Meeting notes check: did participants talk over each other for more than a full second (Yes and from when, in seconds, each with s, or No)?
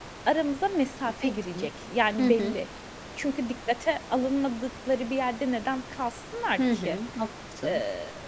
No